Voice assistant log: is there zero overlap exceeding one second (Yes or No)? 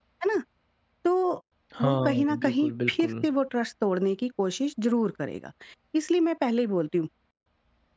No